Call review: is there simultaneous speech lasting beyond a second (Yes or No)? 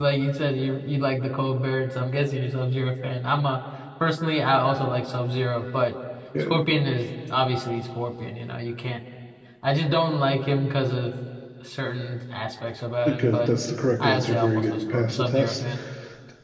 Yes